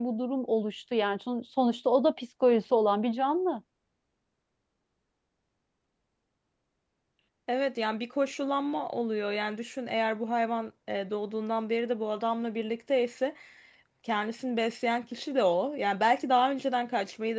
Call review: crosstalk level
none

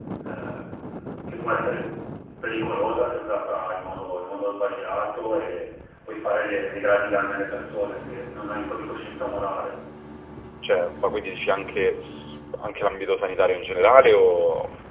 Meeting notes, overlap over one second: none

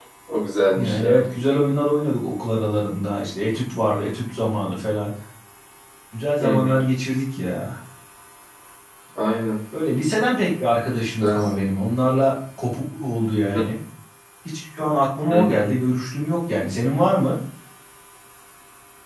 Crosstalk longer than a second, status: none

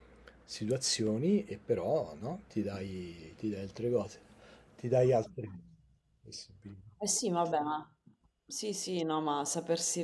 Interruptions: none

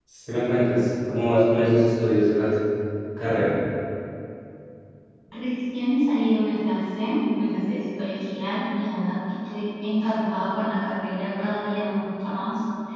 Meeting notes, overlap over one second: none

